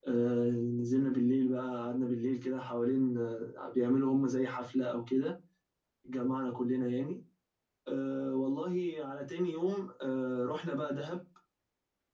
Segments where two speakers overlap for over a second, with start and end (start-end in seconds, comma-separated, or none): none